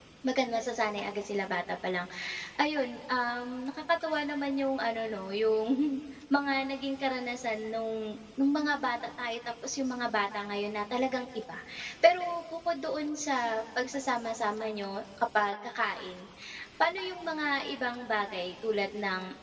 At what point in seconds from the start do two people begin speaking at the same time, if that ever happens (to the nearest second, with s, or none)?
none